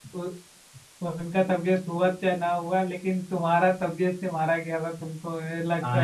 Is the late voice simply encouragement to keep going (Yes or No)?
No